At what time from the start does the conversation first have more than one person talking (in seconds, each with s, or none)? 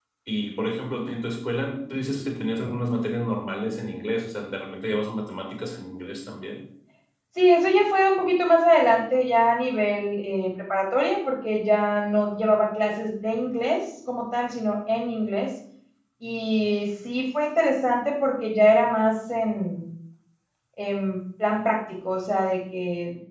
none